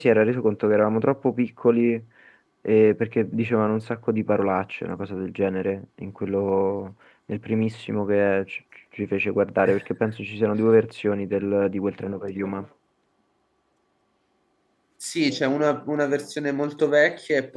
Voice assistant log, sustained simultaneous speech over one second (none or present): none